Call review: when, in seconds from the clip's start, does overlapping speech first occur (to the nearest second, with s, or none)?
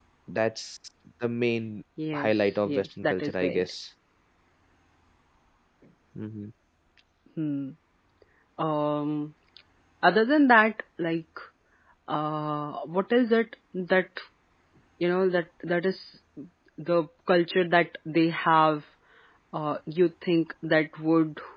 2 s